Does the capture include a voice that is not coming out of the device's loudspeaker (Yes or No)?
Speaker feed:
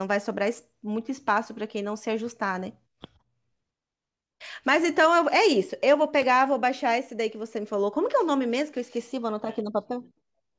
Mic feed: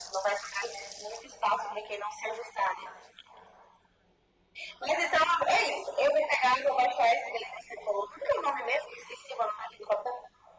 No